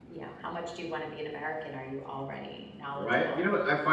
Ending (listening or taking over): taking over